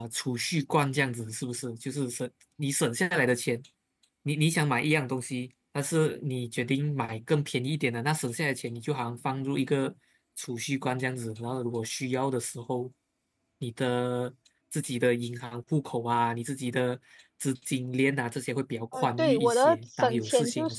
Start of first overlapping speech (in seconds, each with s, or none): 18.9 s